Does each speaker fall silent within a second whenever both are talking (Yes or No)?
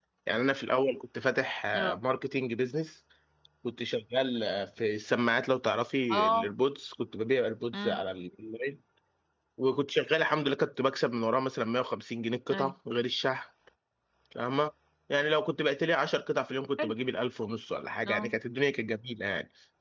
Yes